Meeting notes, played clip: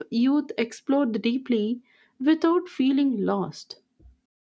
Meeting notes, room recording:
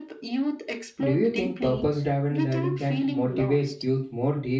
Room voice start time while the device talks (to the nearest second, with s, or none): 1 s